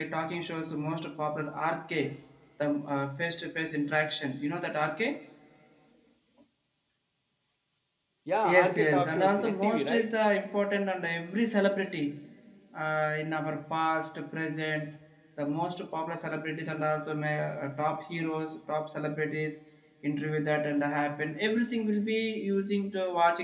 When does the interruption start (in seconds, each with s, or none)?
8.4 s